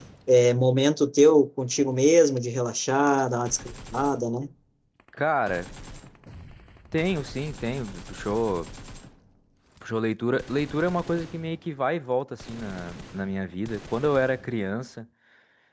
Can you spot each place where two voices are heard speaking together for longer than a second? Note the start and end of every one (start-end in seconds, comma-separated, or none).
none